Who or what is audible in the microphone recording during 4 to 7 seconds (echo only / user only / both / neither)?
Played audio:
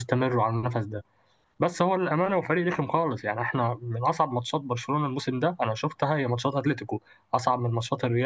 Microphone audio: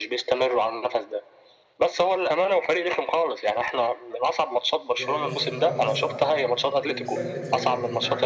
both